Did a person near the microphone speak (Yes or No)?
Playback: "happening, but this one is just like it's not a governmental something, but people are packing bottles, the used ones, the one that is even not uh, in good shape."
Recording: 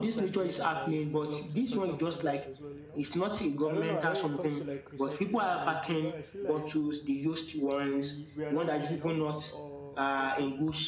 Yes